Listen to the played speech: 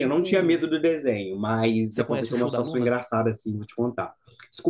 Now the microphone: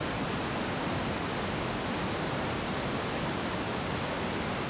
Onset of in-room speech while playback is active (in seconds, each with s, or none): none